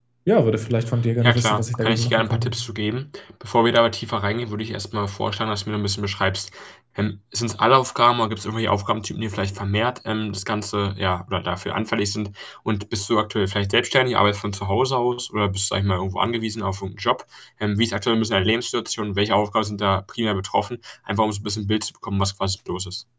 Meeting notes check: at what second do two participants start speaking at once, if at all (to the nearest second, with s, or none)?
1 s